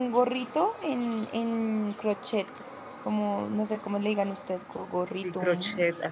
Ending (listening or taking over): taking over